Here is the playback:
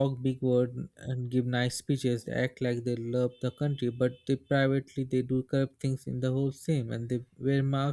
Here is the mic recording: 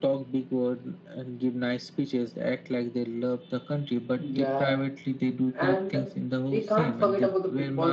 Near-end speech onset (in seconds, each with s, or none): 4.2 s